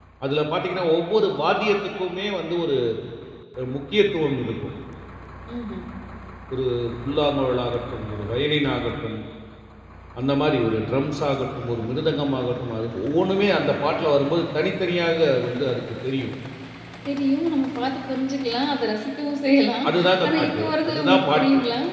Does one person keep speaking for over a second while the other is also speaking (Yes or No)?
Yes